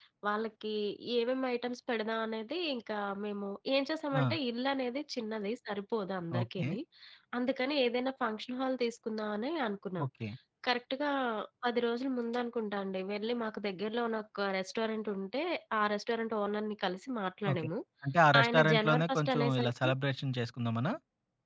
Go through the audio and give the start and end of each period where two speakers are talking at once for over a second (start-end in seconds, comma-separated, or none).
18.4-19.9